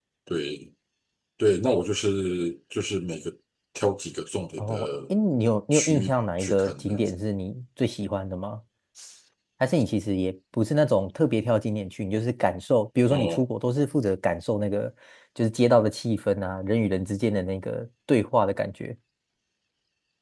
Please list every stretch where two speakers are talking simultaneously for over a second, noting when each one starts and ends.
5.7-7.0

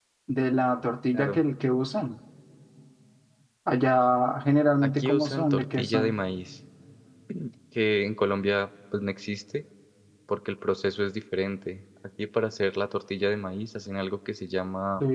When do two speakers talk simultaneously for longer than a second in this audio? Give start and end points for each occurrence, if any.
4.8-6.2

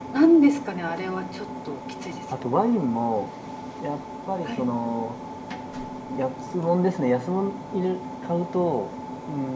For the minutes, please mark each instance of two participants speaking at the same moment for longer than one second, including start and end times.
none

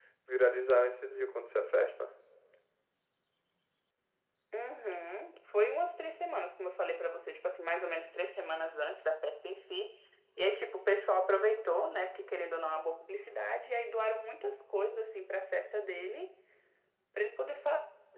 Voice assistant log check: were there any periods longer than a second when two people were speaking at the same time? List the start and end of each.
none

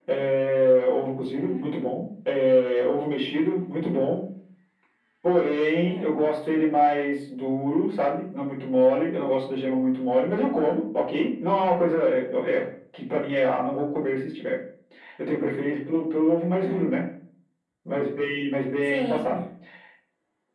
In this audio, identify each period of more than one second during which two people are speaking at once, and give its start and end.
none

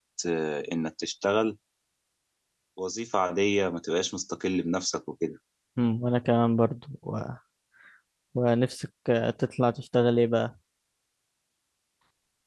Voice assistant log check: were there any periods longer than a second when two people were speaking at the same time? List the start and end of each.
none

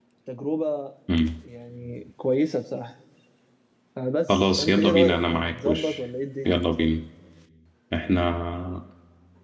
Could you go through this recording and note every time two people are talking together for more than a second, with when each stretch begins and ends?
4.3-6.0

